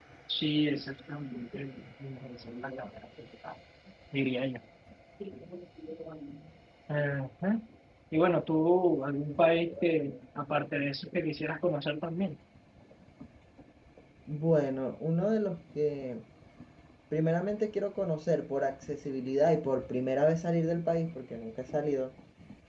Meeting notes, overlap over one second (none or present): none